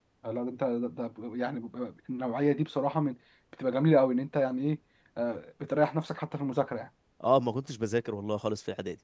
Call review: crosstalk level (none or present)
none